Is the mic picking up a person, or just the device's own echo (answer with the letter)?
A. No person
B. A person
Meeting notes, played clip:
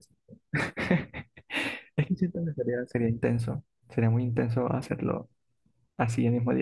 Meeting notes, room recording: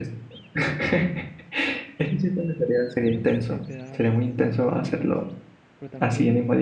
B